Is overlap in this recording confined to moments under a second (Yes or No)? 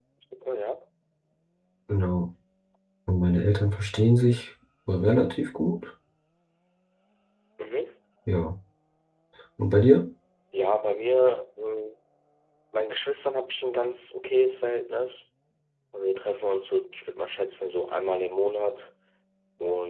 Yes